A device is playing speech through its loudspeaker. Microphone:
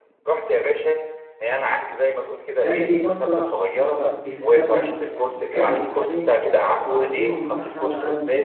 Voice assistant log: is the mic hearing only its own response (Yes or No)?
No